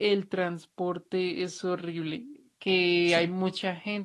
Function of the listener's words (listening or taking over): listening